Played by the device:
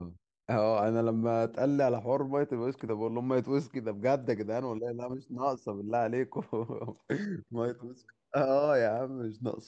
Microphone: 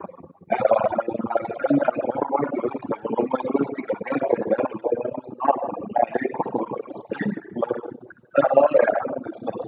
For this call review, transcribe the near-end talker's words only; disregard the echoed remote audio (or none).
none